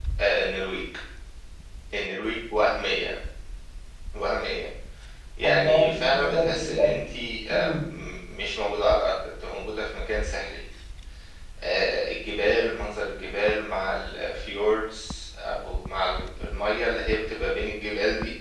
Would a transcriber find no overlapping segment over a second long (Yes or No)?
No